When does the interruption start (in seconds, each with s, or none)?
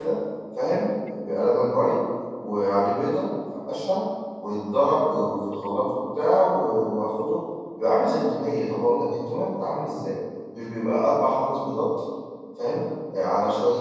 none